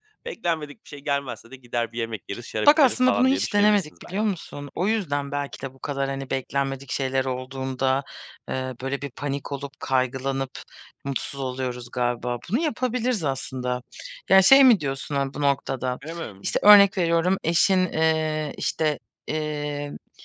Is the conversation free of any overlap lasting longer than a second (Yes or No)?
No